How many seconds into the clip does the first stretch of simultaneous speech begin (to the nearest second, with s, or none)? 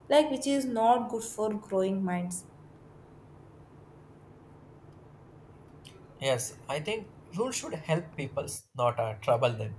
none